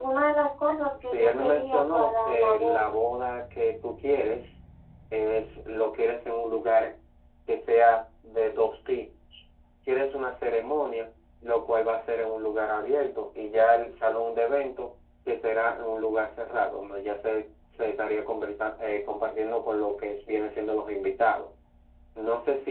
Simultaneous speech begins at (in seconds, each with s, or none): 1.0 s